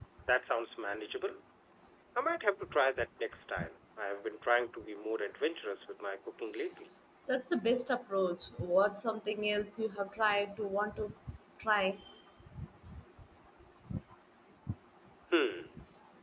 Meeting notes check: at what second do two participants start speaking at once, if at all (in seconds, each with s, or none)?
none